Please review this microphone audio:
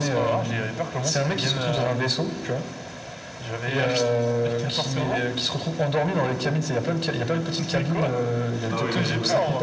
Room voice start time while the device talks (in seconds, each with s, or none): 8.7 s